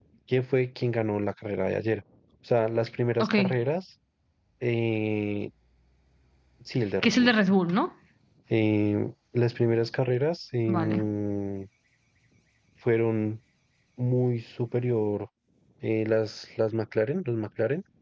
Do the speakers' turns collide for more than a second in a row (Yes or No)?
No